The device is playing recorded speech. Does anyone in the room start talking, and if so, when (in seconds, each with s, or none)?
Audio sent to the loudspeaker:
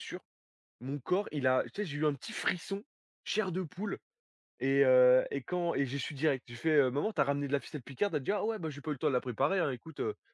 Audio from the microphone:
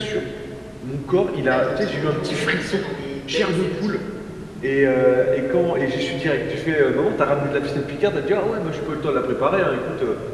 1.4 s